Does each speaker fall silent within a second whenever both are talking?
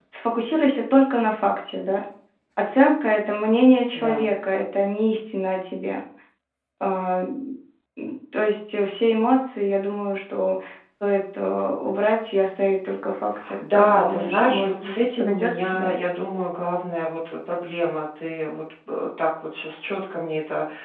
No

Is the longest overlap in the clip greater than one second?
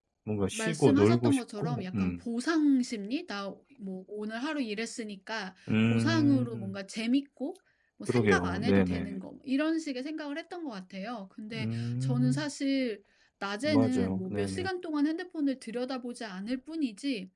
Yes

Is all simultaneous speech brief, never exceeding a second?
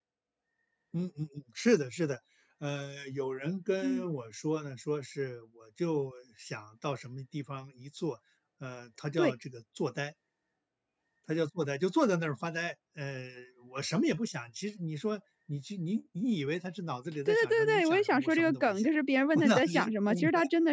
No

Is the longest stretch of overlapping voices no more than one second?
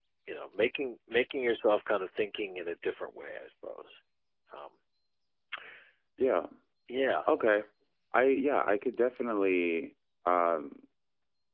Yes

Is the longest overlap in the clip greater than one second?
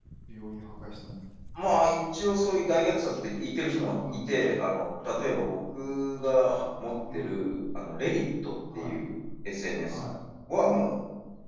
No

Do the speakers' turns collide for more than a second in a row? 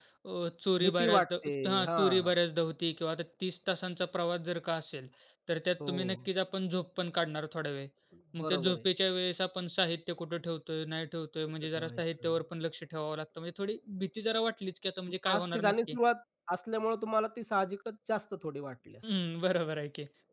Yes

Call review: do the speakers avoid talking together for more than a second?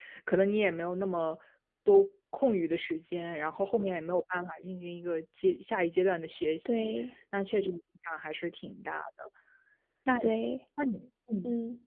Yes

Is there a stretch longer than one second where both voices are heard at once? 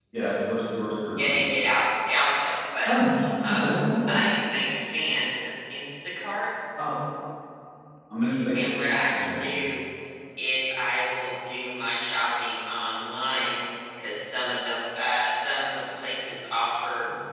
No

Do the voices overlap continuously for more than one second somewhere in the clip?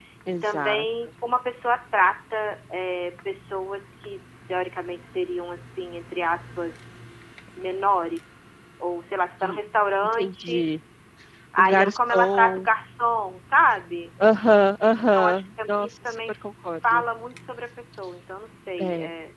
Yes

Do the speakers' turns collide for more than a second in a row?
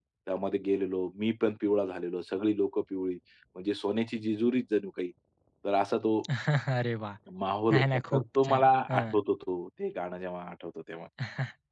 Yes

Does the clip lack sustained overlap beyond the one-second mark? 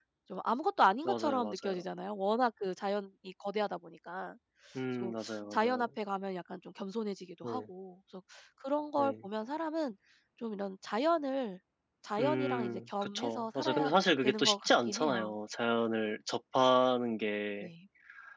No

